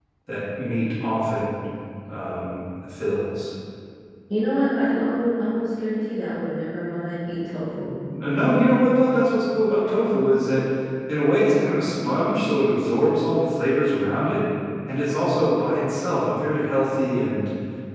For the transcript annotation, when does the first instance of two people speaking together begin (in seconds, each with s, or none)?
none